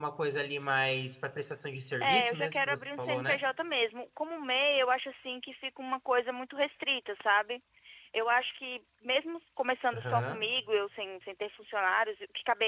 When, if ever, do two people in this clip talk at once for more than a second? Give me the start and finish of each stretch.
2.0-3.4

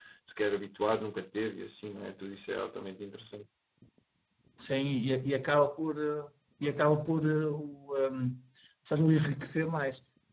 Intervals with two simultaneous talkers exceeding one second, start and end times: none

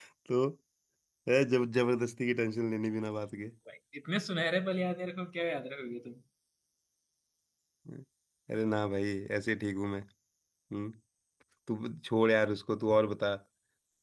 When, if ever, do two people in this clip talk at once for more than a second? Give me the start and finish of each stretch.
none

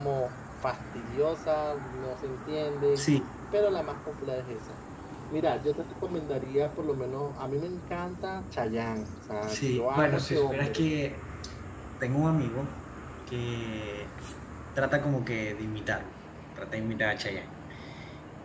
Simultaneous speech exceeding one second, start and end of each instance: 9.5-10.8

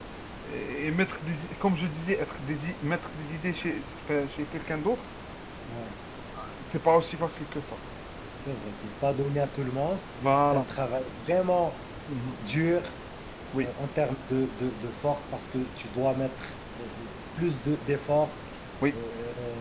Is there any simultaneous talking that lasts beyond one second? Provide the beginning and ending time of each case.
none

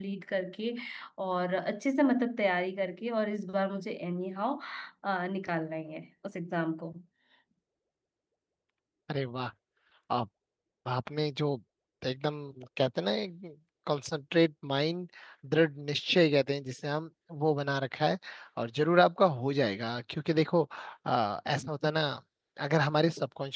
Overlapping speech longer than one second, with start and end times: none

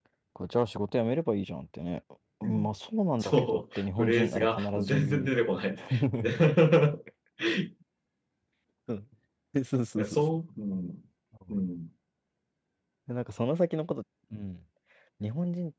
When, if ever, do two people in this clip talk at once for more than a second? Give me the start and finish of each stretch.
3.2-5.4

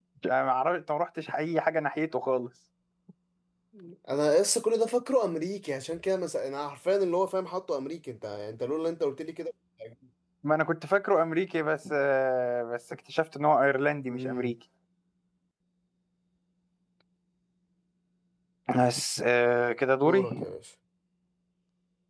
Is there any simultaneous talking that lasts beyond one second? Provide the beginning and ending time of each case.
none

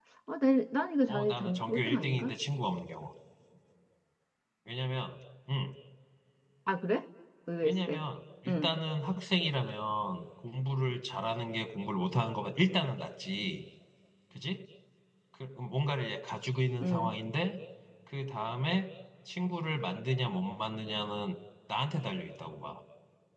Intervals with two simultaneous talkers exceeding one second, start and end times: 1.1-2.3

